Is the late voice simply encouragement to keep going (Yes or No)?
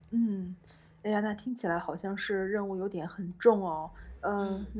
Yes